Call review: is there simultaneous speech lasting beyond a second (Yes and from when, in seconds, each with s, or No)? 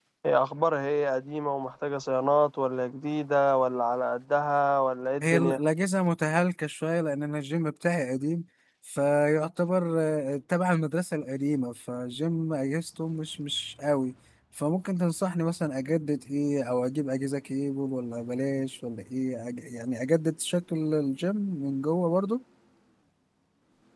No